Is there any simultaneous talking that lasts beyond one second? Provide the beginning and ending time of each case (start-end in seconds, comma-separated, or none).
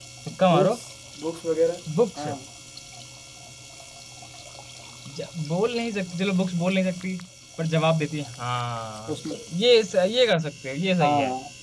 none